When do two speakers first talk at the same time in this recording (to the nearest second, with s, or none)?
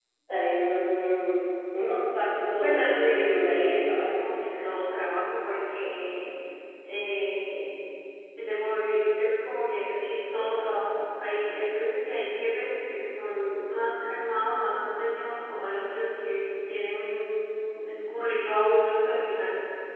3 s